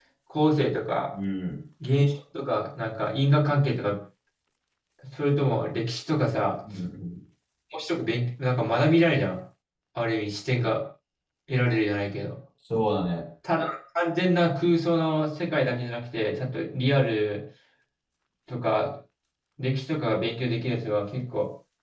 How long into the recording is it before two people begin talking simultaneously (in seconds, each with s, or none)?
none